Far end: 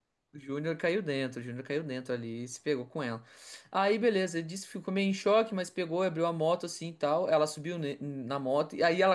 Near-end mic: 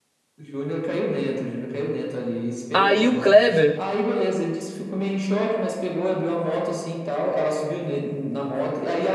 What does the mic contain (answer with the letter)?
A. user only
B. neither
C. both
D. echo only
C